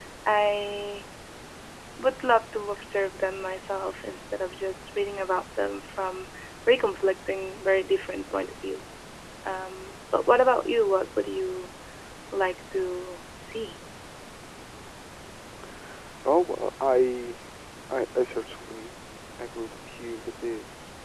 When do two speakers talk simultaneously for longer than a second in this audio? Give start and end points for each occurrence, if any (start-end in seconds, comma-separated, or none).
none